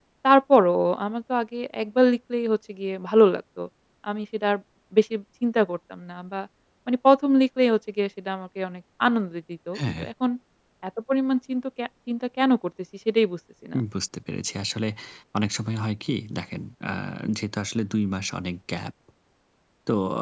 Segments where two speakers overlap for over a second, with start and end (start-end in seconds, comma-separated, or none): none